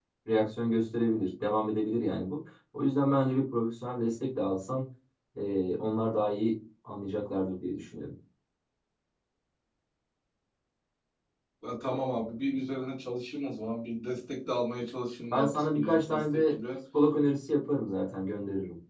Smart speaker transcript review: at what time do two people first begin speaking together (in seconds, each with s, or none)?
15.3 s